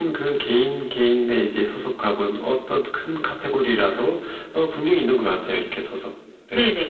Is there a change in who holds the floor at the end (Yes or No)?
Yes